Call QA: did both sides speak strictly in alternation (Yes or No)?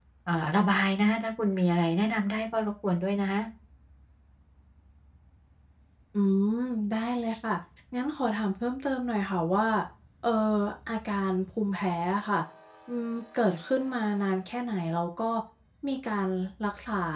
Yes